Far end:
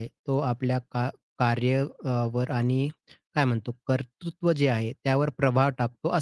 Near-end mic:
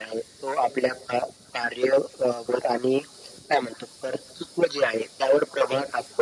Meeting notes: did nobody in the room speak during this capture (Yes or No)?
Yes